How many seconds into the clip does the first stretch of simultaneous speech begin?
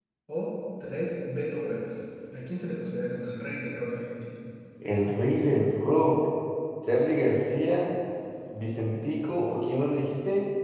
none

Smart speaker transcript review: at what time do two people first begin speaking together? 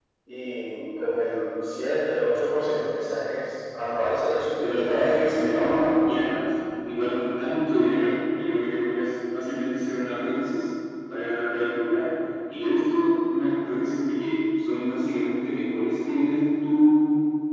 4.6 s

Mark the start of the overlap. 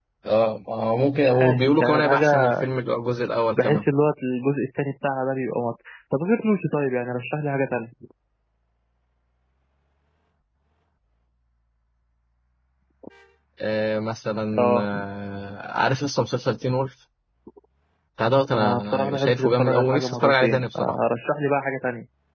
1.1 s

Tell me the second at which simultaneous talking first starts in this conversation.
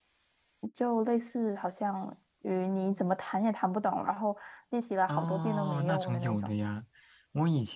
5.1 s

